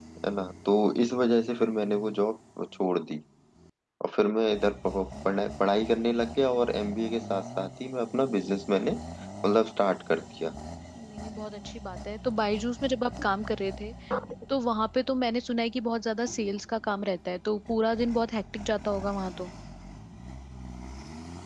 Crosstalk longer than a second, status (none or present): none